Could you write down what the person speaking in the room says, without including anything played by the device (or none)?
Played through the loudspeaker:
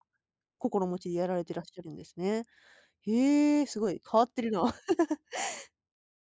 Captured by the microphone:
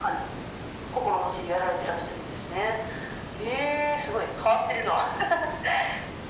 none